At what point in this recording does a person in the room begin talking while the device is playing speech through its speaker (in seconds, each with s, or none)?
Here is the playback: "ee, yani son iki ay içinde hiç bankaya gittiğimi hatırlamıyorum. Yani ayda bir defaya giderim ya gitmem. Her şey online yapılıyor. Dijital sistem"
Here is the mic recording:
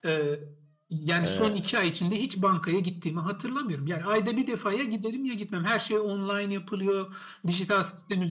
1.2 s